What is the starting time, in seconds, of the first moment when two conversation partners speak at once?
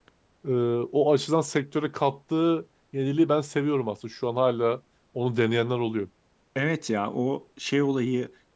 none

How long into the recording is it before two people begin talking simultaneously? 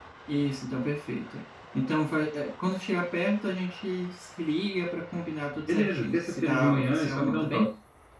6 s

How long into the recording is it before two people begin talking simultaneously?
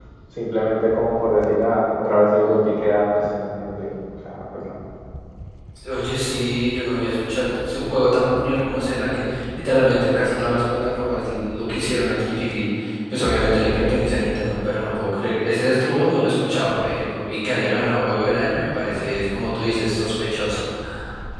none

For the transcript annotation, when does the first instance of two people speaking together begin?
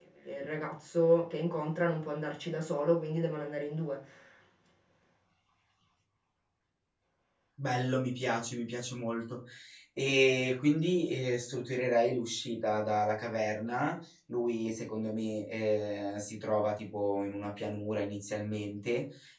none

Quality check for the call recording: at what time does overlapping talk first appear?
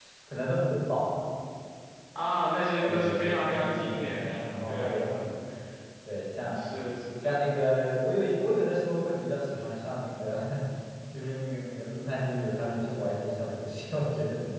3 s

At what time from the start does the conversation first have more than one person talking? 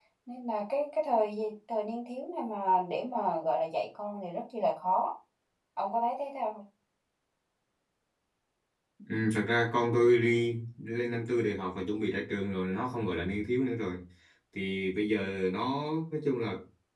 none

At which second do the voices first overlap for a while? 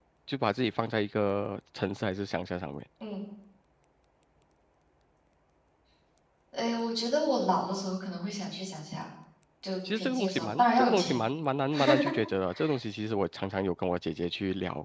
10 s

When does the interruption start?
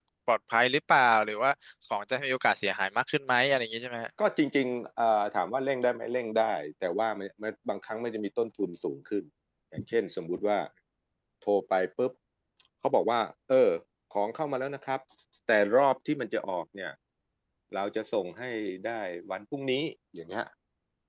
none

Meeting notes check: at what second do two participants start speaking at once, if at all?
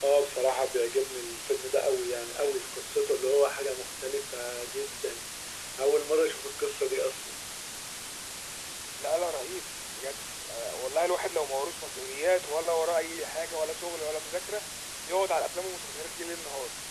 none

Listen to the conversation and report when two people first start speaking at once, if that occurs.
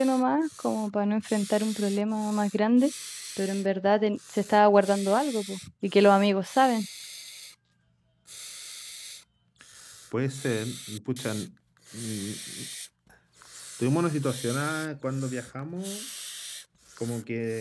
none

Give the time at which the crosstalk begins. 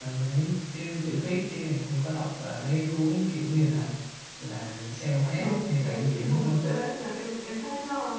5 s

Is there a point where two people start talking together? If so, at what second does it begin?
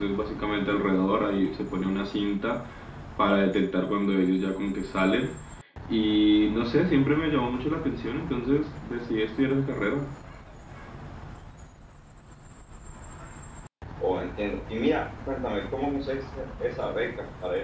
none

